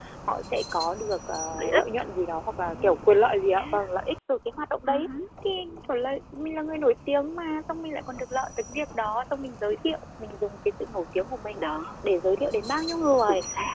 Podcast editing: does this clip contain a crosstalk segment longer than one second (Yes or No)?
No